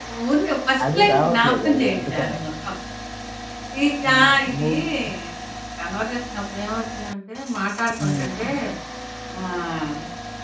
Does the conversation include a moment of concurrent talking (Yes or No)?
Yes